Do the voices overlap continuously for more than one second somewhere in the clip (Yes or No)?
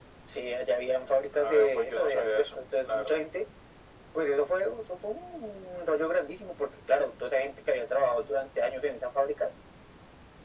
Yes